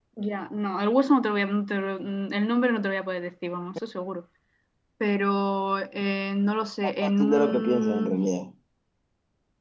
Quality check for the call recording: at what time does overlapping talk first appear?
7 s

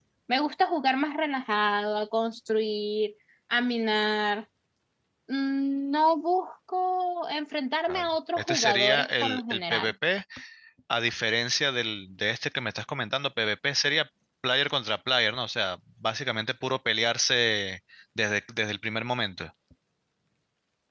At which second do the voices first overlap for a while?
8 s

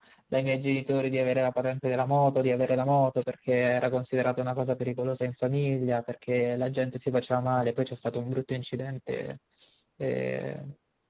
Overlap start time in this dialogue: none

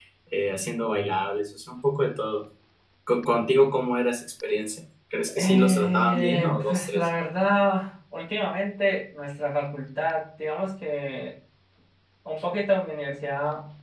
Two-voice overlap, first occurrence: 5 s

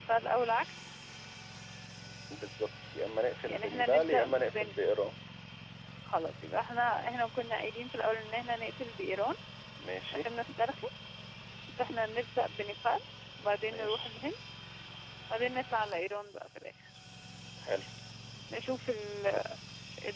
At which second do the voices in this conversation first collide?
3 s

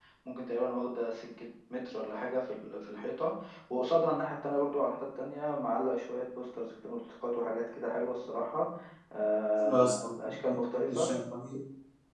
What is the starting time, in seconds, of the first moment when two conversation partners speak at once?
10 s

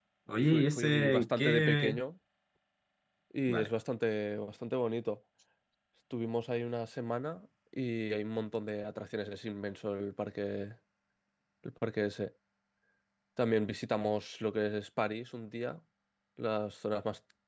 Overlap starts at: 1 s

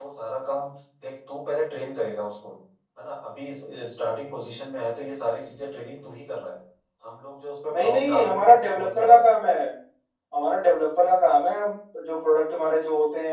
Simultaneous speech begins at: 8 s

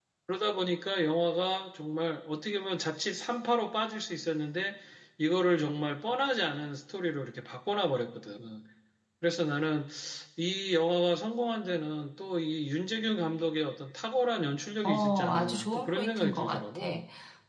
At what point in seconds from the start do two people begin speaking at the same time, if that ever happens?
15 s

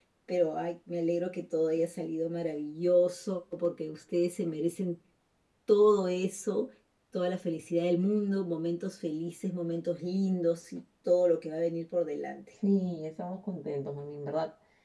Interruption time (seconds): none

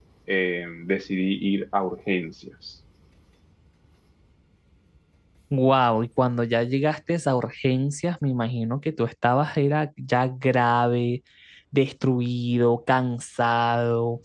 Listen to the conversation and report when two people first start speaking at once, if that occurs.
none

